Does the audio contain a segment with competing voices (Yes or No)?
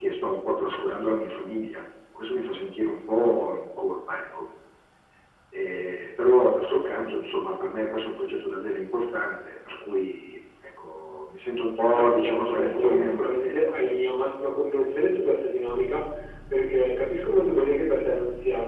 Yes